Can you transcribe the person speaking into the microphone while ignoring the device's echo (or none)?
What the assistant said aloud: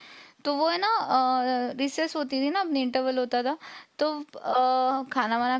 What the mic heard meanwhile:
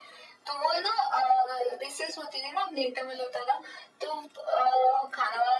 none